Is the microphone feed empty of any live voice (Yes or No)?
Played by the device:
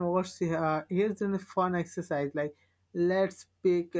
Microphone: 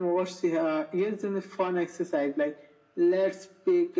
Yes